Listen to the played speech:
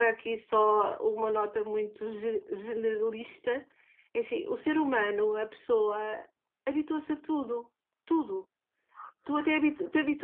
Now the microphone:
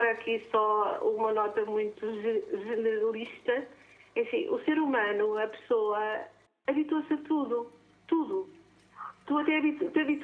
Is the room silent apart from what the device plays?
Yes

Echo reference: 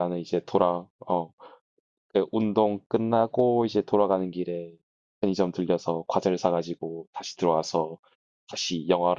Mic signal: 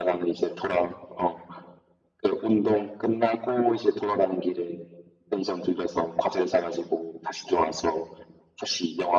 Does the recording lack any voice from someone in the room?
Yes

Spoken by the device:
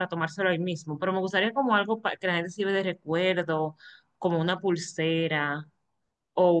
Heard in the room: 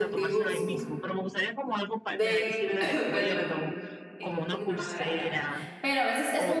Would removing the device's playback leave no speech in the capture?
No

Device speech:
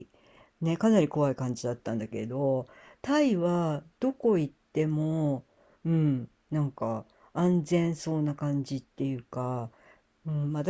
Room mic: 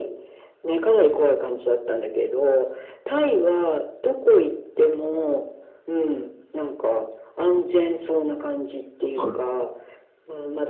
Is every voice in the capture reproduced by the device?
No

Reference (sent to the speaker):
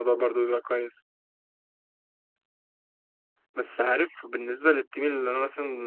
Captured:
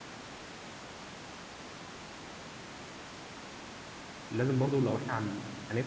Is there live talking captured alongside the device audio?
Yes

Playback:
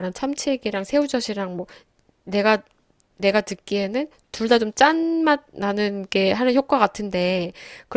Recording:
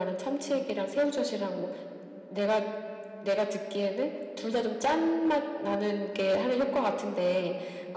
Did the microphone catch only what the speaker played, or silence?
Yes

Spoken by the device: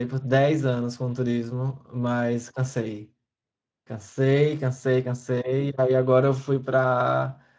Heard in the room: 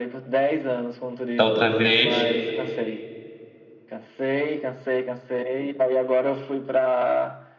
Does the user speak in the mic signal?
Yes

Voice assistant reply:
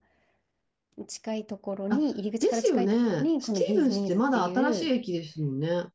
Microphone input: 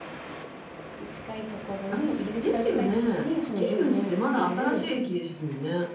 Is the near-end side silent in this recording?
Yes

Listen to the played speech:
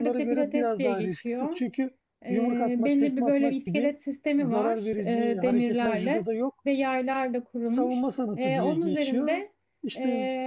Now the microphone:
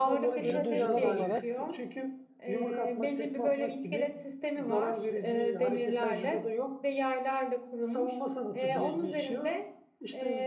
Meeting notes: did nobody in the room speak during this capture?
No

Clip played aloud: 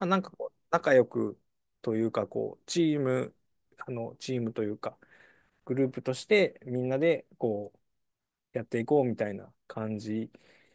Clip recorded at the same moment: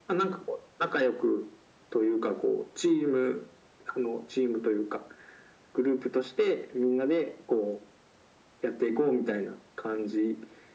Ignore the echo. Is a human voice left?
No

